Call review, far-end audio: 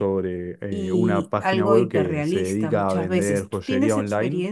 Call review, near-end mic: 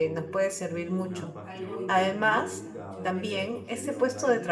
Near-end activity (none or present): present